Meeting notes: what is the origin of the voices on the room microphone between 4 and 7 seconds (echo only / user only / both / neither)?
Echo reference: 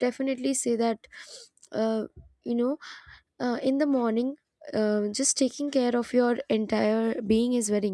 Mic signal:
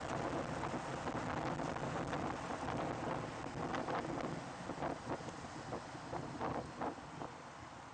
neither